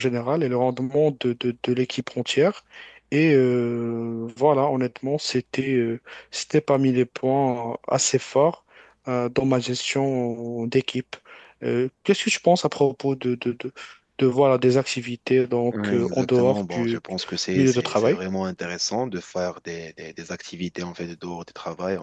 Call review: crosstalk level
present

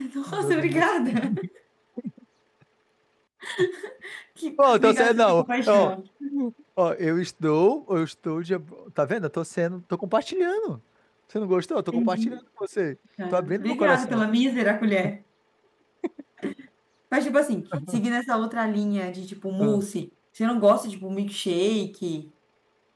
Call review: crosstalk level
present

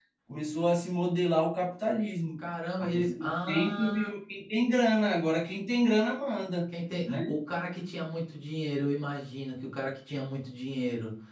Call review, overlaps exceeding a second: present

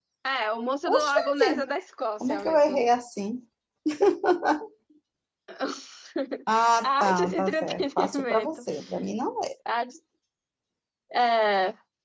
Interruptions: present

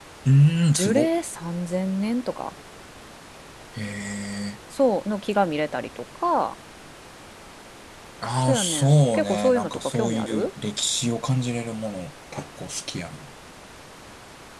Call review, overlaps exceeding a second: present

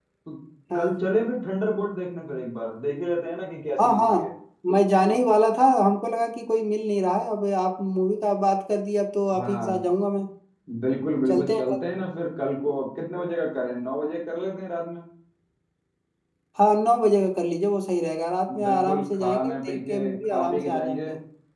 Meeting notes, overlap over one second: present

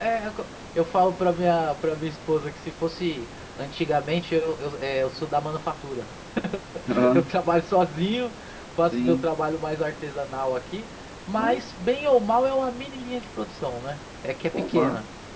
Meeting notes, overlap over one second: none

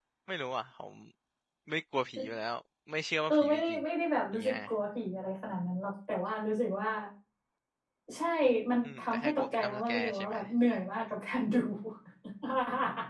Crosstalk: present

